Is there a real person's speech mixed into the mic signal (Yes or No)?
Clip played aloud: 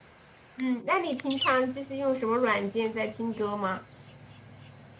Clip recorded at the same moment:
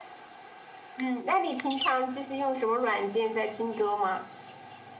No